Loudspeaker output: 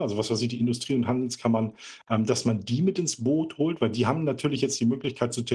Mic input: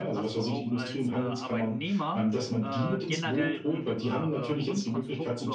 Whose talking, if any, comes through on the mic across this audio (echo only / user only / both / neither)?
both